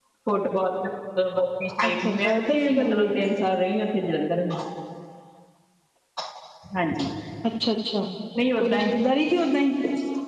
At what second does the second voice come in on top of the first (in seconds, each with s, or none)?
1.9 s